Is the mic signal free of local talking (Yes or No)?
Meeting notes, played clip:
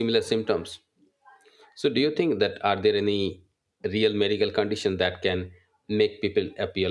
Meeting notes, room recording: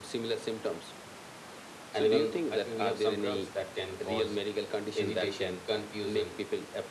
No